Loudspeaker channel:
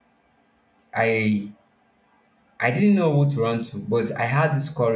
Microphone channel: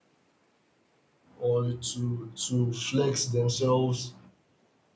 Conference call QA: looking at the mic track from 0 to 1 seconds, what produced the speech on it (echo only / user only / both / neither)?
neither